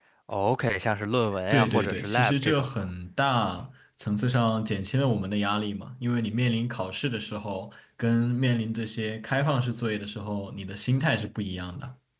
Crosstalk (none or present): present